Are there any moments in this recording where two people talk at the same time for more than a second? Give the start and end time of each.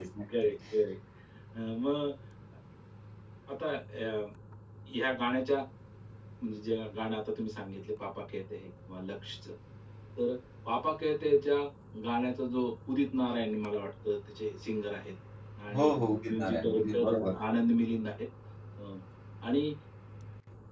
15.7-17.1

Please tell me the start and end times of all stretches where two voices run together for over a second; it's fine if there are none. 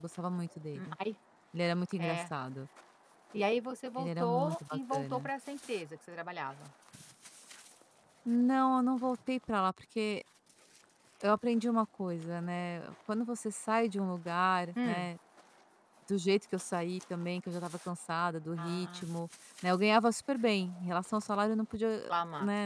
4.0-5.3

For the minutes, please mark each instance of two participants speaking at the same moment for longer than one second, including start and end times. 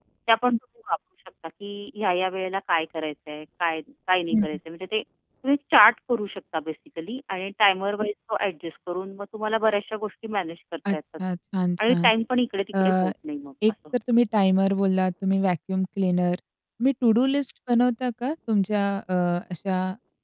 none

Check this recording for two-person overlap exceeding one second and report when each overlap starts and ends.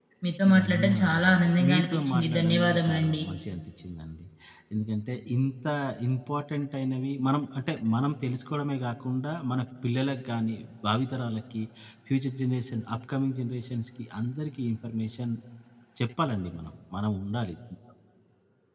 0.6-3.2

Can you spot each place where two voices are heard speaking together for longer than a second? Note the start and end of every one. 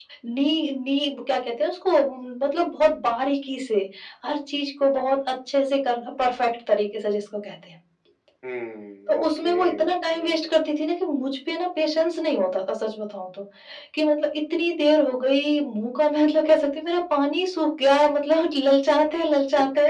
9.1-10.3

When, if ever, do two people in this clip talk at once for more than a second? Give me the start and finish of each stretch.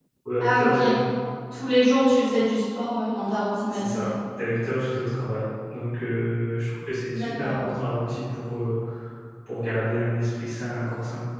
none

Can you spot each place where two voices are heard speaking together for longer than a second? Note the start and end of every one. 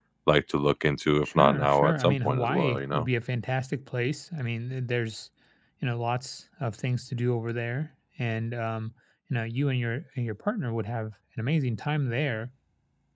1.2-3.1

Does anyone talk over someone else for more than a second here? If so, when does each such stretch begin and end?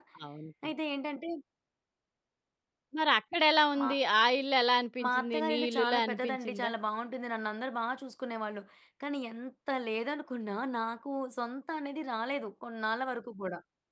5.0-6.7

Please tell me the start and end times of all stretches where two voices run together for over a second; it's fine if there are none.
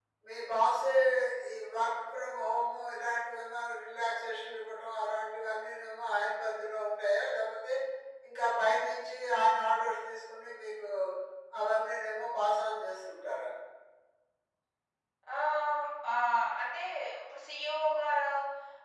none

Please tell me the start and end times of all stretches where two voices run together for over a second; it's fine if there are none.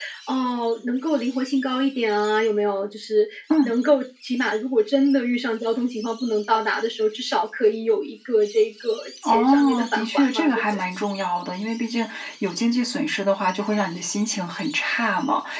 9.2-10.8

